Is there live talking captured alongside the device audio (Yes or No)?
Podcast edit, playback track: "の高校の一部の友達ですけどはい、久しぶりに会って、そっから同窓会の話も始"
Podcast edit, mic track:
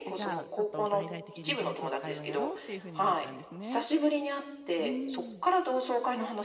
Yes